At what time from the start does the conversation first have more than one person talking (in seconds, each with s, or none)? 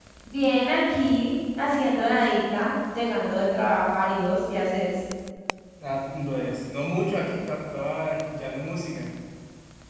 none